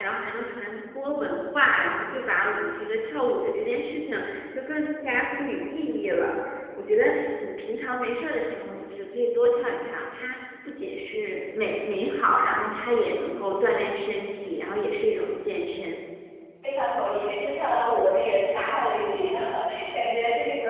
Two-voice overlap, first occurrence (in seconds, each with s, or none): none